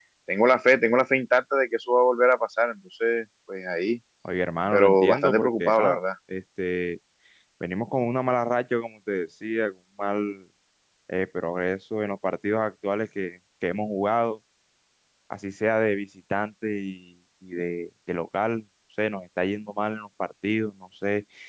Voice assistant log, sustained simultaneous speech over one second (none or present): present